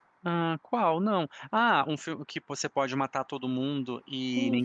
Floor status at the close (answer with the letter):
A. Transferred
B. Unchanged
A